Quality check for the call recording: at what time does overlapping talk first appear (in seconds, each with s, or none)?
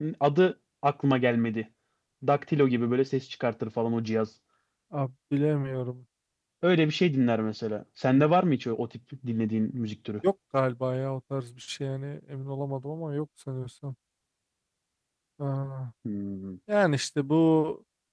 none